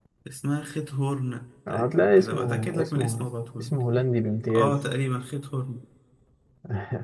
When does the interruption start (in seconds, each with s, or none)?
1.7 s